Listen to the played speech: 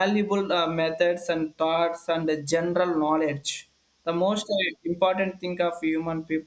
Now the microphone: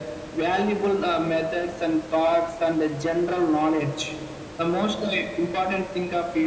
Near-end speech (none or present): none